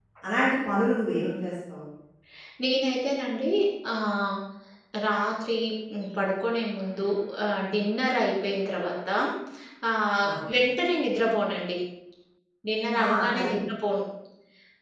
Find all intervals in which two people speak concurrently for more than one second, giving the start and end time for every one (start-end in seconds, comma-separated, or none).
none